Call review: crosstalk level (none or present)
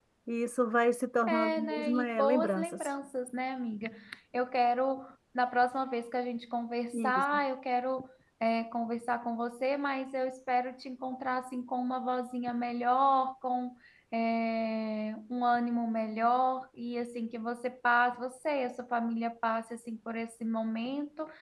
present